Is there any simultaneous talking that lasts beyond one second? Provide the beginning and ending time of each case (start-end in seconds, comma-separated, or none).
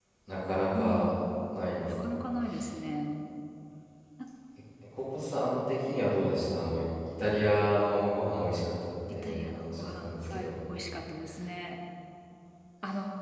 9.1-10.5